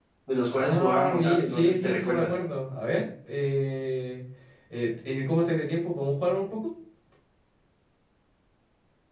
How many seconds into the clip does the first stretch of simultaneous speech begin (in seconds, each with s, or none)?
0.6 s